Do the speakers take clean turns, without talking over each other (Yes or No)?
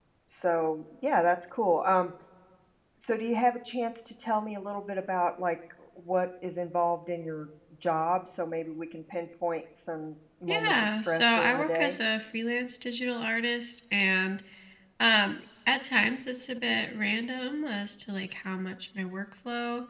No